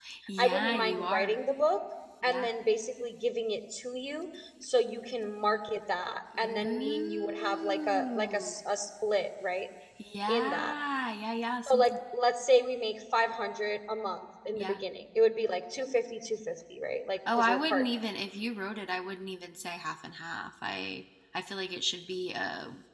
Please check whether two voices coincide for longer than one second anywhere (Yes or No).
Yes